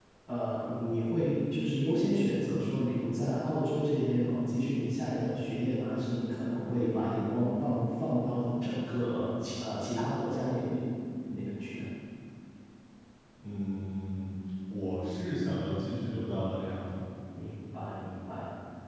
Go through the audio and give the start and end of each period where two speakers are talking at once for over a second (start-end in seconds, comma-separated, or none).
none